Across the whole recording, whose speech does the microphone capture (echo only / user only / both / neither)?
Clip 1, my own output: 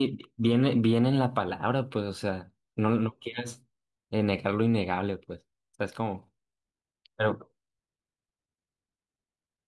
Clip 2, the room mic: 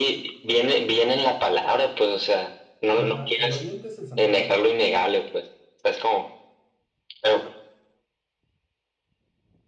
both